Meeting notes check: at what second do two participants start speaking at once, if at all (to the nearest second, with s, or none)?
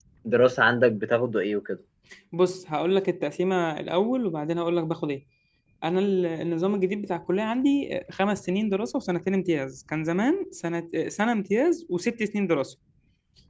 none